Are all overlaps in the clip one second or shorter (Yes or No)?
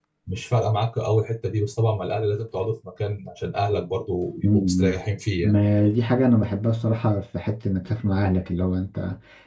Yes